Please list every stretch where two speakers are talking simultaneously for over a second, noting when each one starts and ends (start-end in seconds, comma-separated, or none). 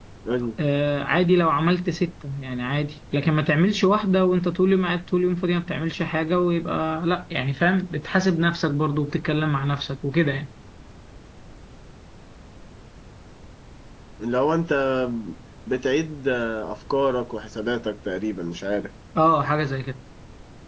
none